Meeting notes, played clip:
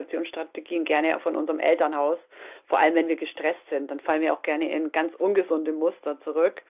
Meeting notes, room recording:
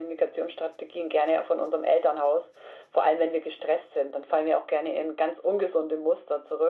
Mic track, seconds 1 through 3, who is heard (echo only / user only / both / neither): echo only